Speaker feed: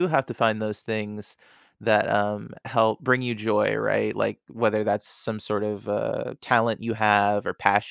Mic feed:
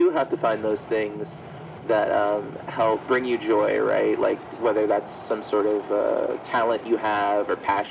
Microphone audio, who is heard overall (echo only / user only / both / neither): echo only